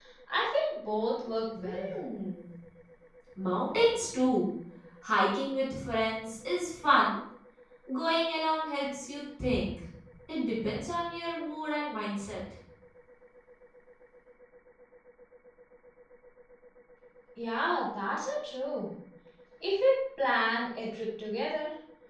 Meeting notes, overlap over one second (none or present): none